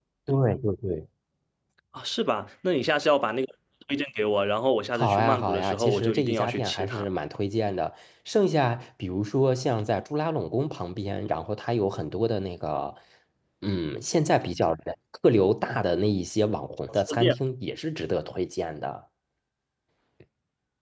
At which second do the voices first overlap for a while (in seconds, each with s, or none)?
5.0 s